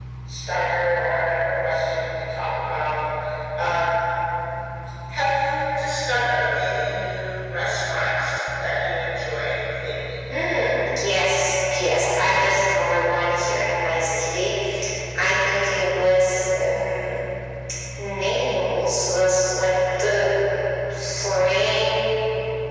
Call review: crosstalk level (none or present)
none